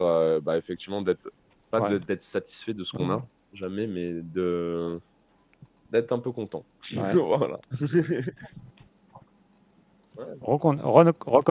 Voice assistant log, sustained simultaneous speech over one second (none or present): none